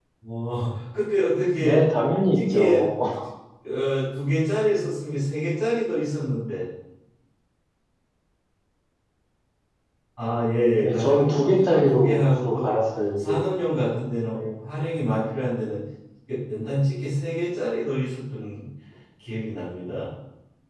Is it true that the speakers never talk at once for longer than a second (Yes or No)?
No